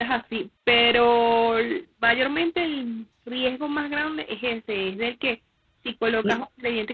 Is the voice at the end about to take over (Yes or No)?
No